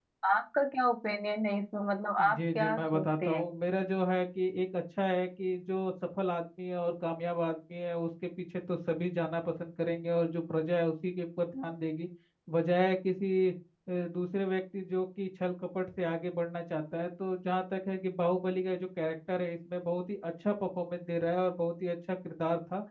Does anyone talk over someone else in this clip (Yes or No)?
Yes